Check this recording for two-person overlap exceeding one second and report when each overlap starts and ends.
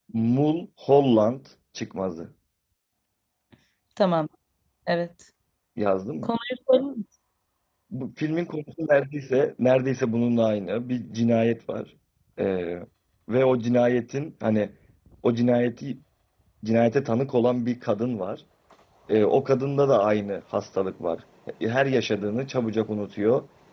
none

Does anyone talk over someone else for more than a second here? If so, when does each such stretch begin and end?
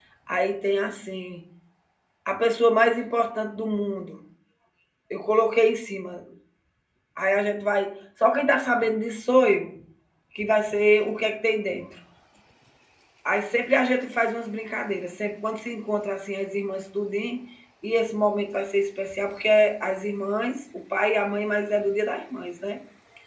none

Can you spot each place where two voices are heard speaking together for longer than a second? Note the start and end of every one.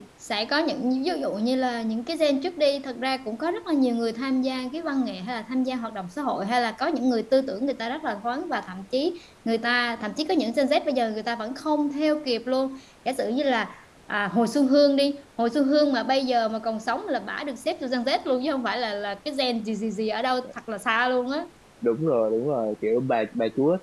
none

